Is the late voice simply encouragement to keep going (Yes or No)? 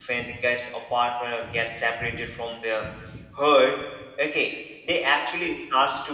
Yes